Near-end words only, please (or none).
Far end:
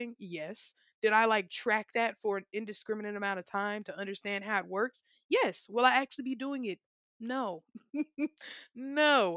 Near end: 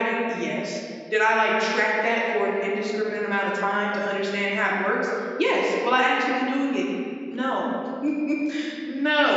none